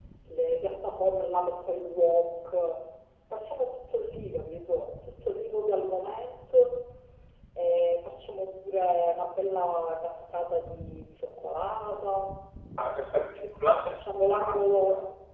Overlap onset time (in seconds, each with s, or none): 13.7 s